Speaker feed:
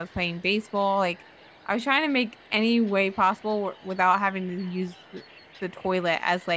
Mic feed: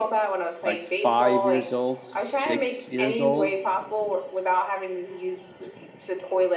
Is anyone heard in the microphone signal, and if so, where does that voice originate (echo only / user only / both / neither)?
both